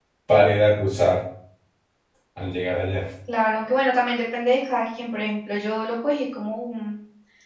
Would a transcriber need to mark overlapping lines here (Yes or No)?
No